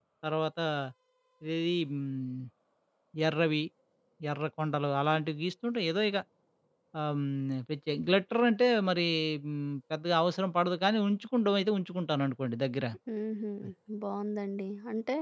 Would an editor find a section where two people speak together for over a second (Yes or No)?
No